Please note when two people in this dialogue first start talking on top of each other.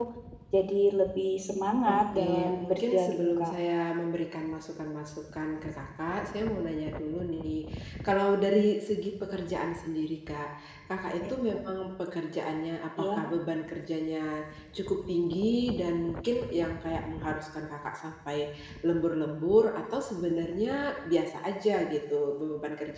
2 s

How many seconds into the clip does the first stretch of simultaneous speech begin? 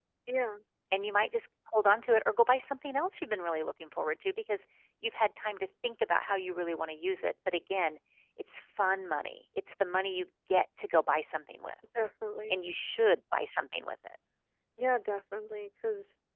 none

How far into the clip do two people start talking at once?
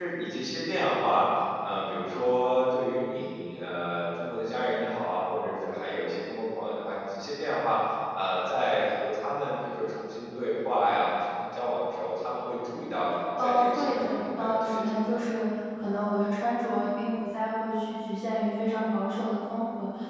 13 s

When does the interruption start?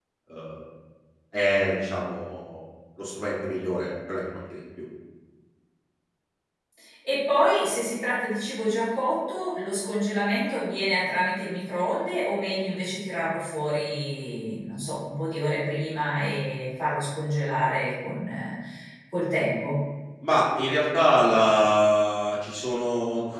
none

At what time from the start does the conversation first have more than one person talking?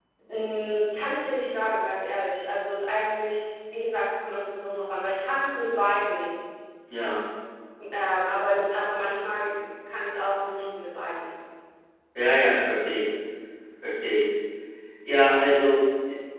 none

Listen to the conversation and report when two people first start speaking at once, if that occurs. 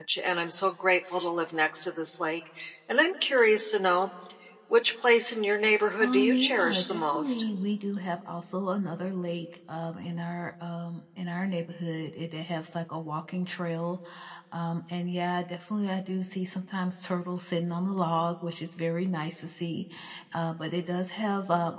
6 s

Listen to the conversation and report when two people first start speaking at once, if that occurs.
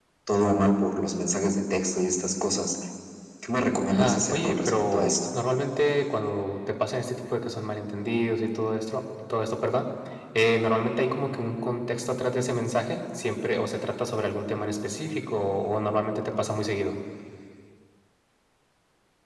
4 s

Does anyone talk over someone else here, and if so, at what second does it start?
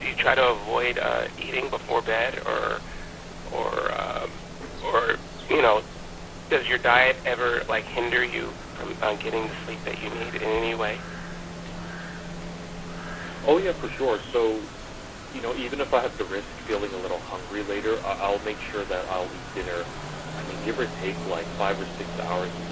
none

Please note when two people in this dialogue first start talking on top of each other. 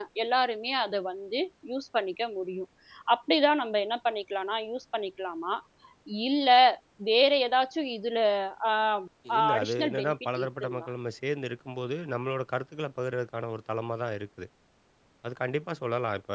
9 s

